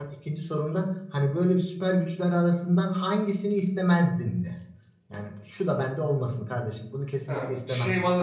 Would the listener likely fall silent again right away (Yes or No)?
No